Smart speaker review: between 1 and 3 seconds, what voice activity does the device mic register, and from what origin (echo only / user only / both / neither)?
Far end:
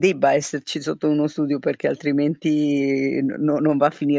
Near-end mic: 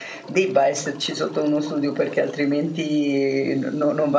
echo only